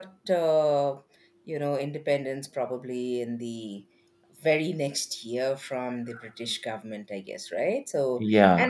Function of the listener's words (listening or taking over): listening